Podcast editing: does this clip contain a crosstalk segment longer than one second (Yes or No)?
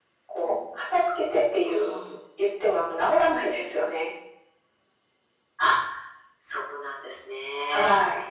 No